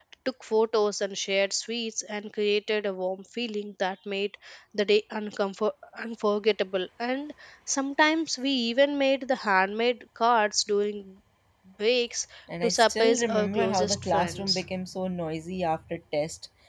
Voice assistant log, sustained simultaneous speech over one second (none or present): present